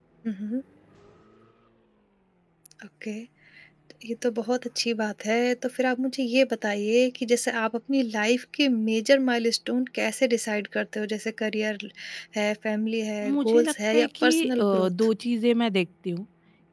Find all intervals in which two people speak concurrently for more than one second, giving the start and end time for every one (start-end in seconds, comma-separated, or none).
13.2-14.9